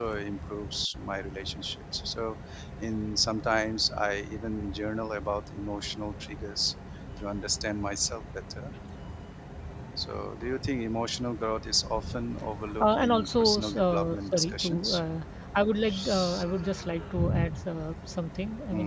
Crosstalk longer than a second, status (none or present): present